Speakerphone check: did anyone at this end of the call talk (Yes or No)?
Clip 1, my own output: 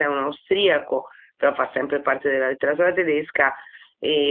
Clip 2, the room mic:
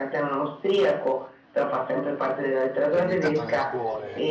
Yes